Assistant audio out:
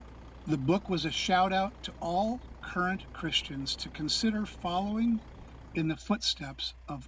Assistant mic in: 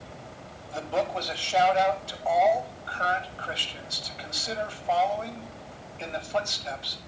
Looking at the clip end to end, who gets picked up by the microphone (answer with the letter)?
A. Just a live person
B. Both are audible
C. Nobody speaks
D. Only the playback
D